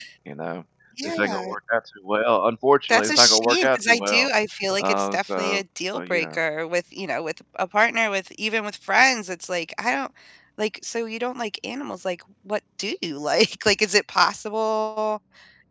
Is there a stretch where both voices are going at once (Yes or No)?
Yes